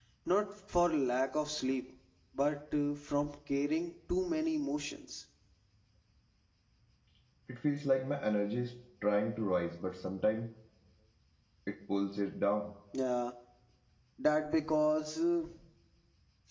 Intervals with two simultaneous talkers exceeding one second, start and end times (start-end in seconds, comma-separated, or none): none